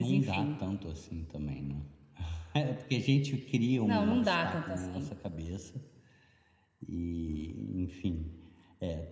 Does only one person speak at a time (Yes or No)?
No